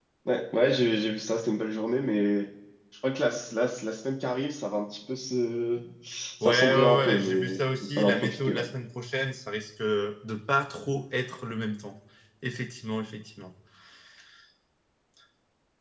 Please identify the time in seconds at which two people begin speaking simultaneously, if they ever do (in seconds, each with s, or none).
6.4 s